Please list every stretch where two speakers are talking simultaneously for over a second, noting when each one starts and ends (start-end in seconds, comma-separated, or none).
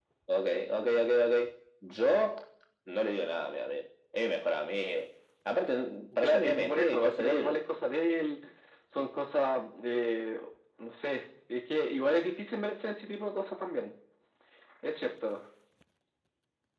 6.2-7.6